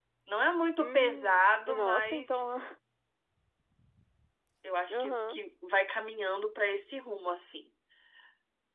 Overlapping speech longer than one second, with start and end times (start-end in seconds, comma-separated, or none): 0.8-2.6